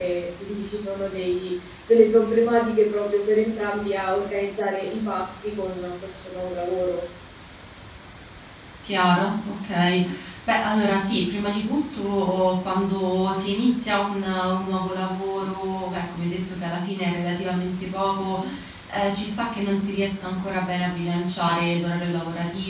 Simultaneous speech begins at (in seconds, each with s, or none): none